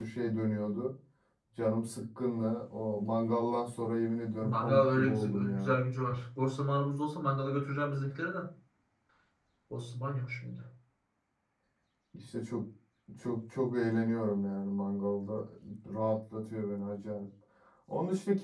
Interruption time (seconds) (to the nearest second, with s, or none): 4 s